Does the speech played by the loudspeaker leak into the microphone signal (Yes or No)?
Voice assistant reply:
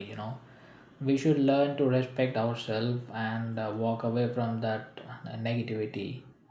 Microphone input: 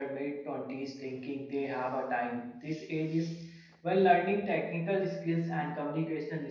No